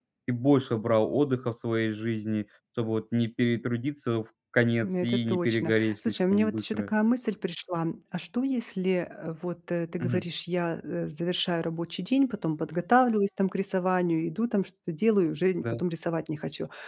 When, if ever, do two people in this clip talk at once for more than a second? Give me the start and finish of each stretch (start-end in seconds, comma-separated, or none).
4.8-6.9